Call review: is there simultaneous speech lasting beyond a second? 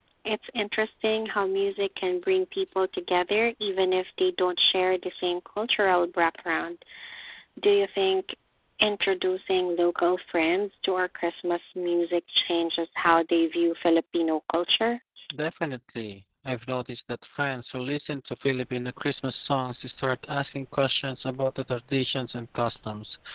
No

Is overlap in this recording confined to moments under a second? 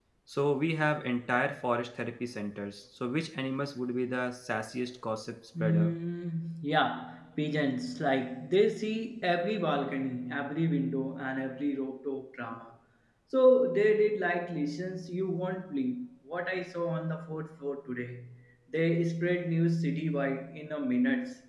Yes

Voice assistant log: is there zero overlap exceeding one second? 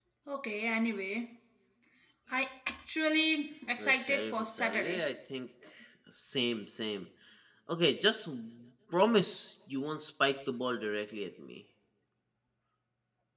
No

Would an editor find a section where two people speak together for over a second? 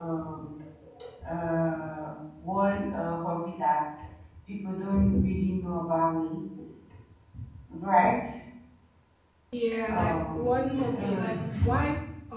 Yes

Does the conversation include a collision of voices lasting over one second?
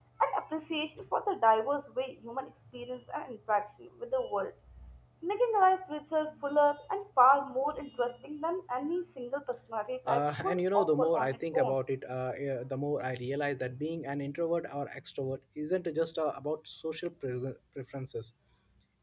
Yes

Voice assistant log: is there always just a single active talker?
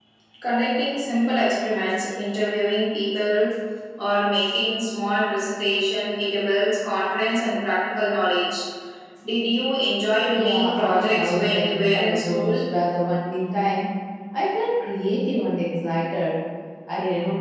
No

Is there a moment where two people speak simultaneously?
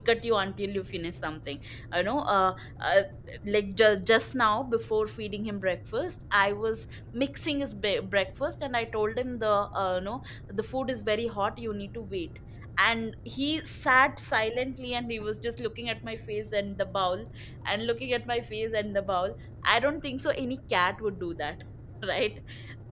No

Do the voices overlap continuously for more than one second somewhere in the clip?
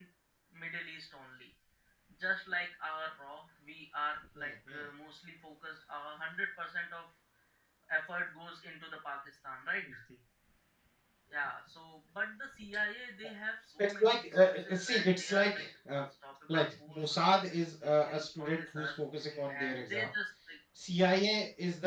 Yes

